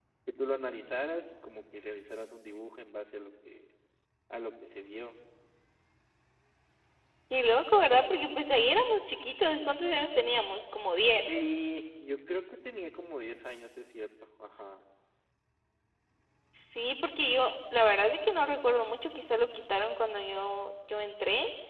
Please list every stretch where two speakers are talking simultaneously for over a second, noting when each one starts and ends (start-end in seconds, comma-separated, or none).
none